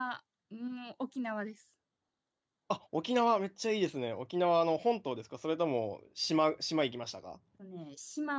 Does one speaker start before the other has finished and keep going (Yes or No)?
No